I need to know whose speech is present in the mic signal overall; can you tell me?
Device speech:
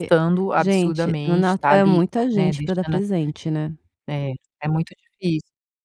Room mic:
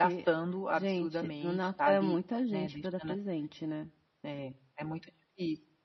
echo only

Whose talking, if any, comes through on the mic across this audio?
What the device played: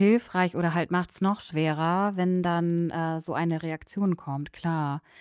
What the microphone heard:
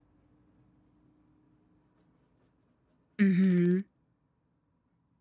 user only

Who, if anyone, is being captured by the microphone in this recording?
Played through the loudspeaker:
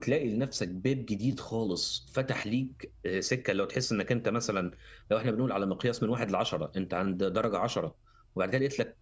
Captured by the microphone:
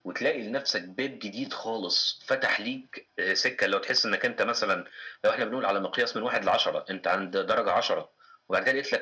echo only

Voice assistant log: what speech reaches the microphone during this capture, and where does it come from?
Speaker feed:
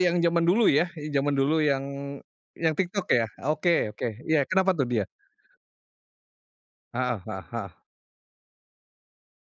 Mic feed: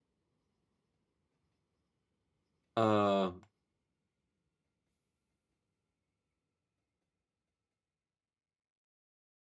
user only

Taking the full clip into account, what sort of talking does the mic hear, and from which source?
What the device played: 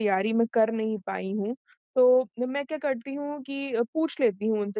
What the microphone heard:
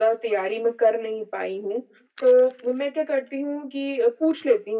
echo only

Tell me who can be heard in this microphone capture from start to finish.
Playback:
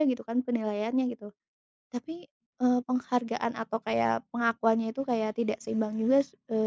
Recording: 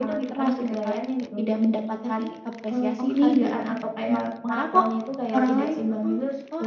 both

